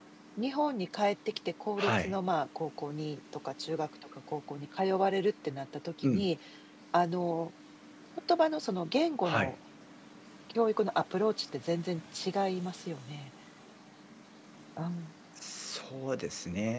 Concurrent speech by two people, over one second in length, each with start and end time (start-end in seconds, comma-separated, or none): none